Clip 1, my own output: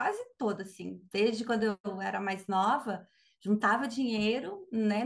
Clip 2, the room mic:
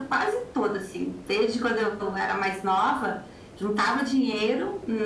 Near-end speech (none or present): none